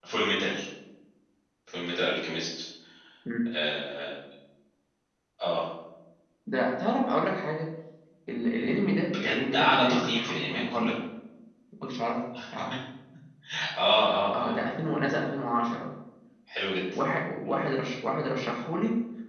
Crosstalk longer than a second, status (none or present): present